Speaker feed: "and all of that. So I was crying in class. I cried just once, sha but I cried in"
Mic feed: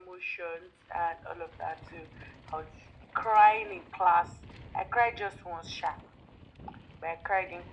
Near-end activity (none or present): none